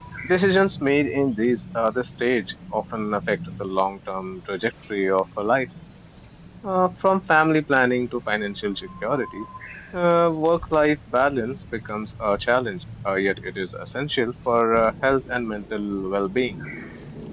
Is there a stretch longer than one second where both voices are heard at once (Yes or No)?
No